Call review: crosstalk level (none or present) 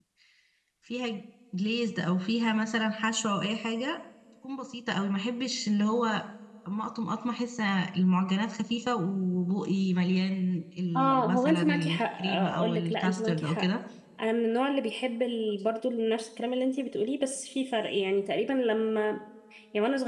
present